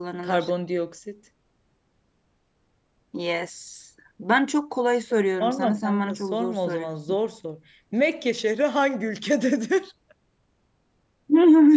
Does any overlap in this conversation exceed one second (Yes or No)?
Yes